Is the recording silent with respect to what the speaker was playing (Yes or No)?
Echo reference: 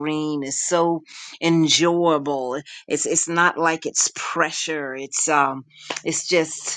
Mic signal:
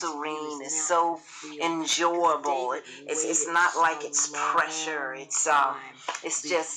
No